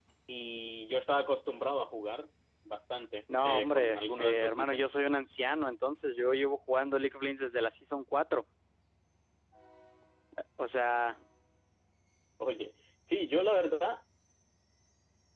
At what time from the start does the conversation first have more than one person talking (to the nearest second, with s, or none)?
3 s